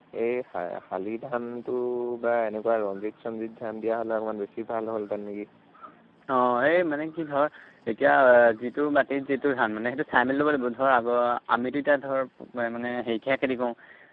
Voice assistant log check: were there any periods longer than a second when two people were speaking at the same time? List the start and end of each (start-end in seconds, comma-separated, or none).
none